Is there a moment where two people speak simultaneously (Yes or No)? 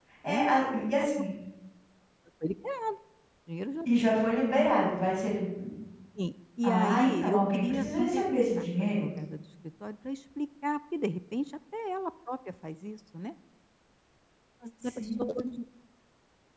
Yes